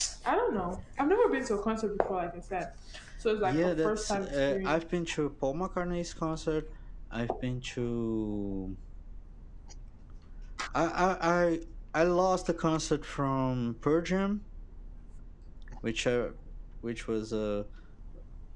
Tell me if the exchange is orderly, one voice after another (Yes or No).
No